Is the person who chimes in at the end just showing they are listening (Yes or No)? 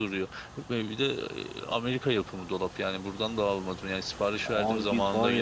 No